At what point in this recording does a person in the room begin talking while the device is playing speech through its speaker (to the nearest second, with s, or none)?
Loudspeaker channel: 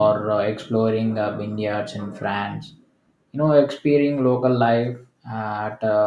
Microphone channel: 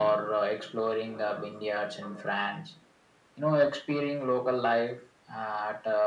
none